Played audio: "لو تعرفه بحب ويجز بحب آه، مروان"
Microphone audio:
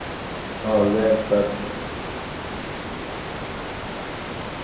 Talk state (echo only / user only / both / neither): user only